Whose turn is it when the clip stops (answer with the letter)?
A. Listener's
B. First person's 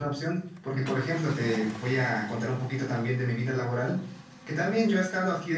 B